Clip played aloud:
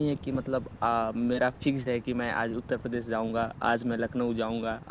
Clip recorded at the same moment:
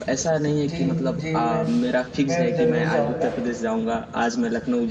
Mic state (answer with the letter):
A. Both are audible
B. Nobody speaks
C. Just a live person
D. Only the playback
A